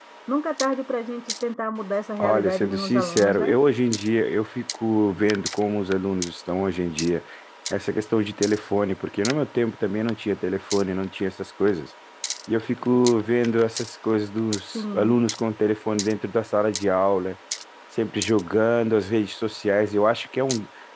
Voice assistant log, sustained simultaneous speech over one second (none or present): present